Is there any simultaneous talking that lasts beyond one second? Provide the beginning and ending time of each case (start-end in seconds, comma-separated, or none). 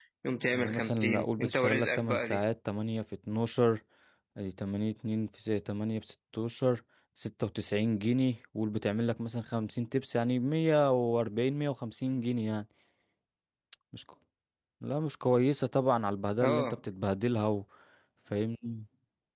0.5-2.4